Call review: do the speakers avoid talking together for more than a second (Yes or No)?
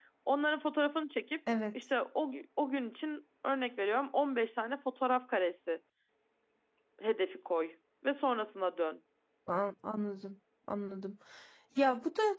Yes